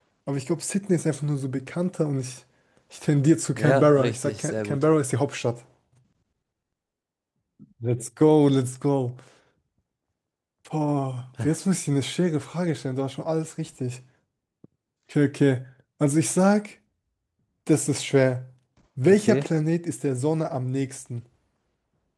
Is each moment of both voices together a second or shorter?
No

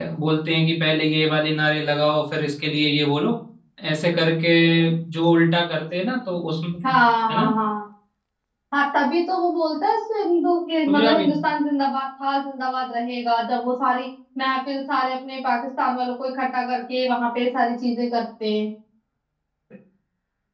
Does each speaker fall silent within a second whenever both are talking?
Yes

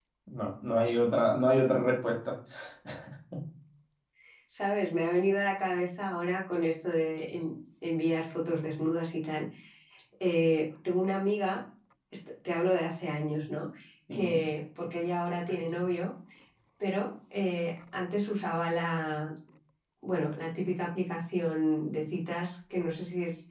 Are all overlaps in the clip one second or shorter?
Yes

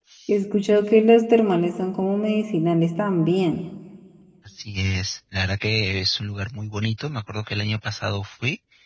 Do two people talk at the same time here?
No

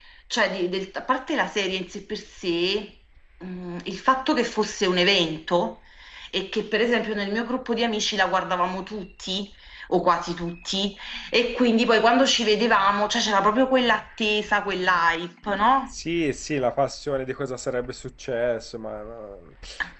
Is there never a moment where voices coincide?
Yes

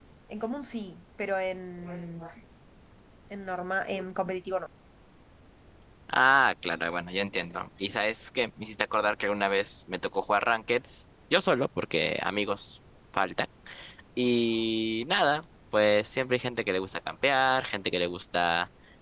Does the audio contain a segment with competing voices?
No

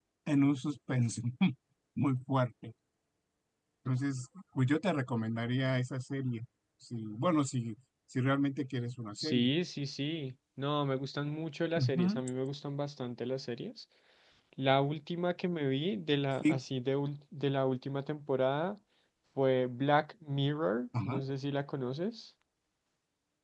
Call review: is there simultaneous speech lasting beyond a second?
No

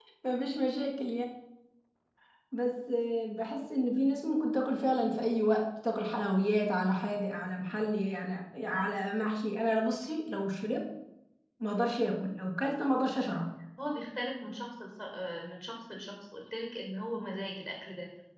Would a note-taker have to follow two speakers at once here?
No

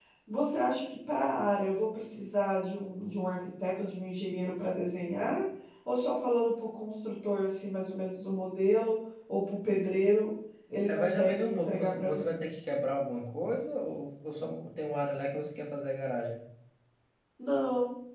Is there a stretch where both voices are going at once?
Yes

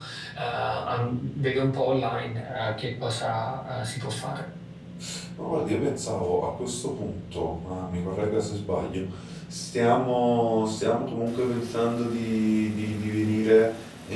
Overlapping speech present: No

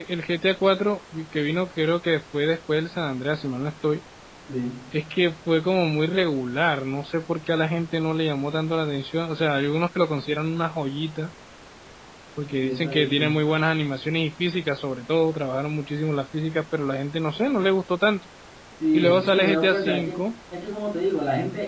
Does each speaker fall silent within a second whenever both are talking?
No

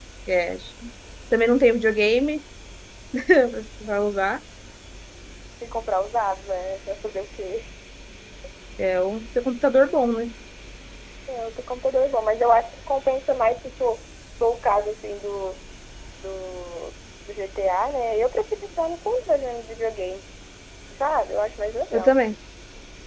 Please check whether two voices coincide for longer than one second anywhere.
No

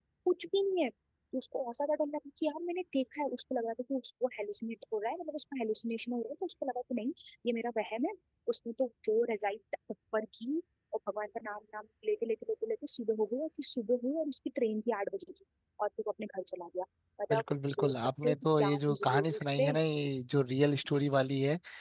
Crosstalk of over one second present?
Yes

